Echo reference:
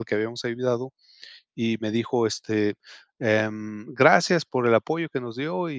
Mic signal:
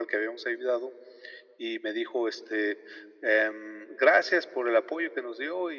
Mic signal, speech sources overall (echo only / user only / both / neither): echo only